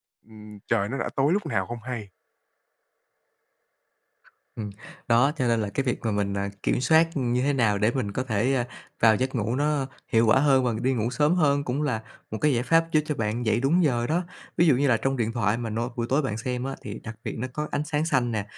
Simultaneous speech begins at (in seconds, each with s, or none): none